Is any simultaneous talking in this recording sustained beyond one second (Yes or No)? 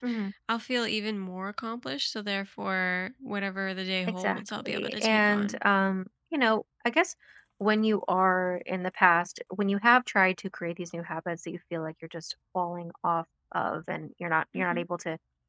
Yes